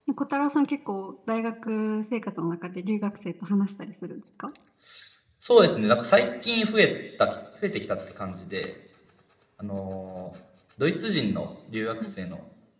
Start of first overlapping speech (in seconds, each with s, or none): none